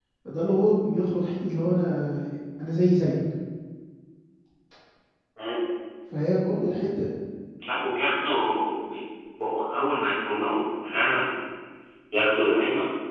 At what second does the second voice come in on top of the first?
none

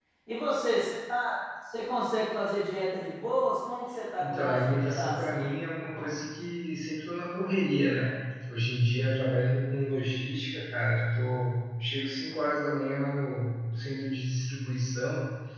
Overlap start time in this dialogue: 4.2 s

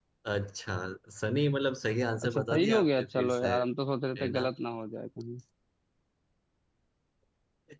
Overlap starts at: 2.2 s

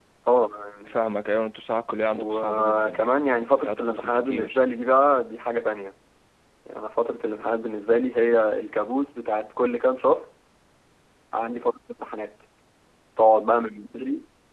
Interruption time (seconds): 2.1 s

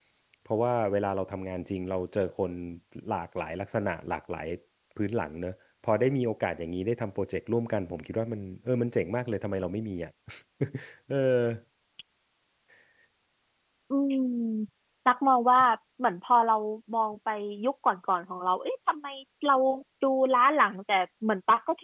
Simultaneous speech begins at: none

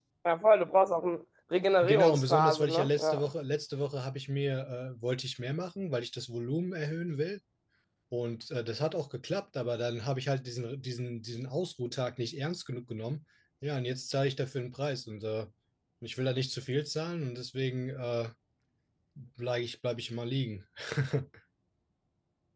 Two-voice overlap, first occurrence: 1.8 s

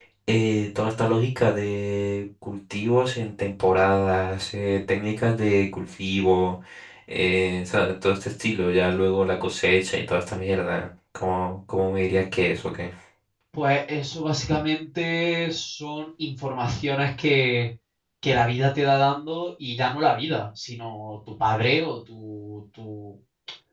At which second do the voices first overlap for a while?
none

